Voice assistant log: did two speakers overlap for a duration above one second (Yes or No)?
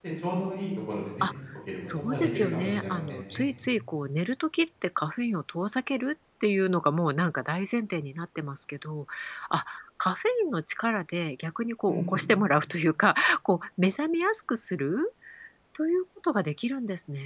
Yes